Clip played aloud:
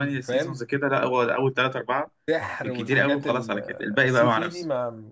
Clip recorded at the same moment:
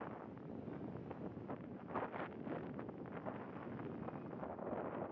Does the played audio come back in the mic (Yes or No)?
No